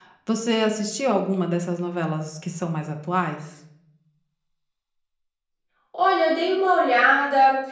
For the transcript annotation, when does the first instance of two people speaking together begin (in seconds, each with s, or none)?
none